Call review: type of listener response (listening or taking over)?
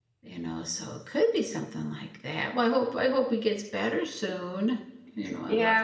taking over